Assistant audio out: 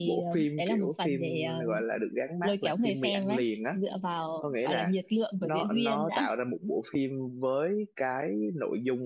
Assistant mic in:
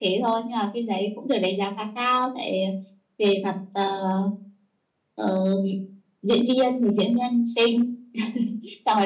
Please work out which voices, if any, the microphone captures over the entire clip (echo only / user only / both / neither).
user only